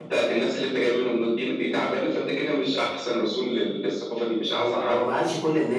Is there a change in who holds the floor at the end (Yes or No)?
Yes